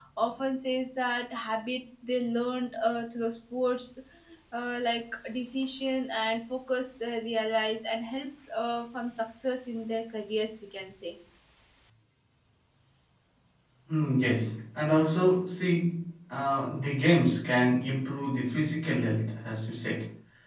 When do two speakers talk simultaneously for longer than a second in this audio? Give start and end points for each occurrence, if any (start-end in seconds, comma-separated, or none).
none